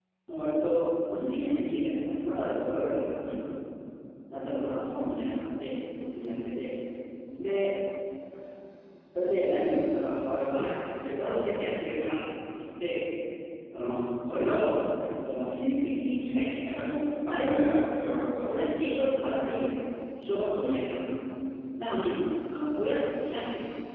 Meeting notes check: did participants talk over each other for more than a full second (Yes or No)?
No